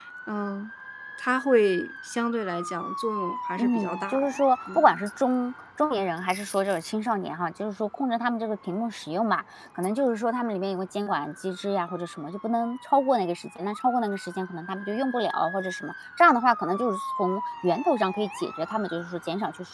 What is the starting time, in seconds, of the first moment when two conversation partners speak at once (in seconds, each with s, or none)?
3.6 s